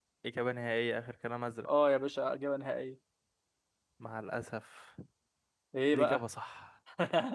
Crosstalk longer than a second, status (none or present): none